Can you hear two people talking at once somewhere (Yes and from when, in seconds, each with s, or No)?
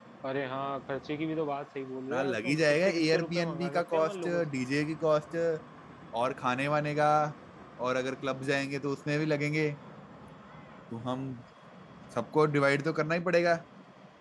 Yes, from 2.1 s